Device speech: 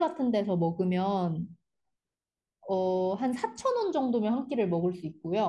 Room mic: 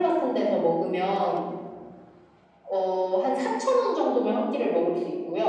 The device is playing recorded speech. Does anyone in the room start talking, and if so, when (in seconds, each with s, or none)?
none